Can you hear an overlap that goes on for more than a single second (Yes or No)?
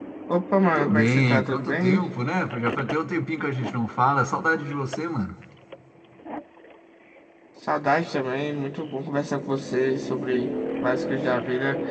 Yes